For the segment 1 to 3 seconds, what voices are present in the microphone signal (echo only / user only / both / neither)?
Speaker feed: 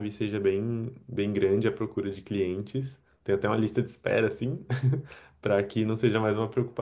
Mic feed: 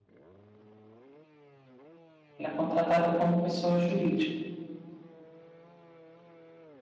user only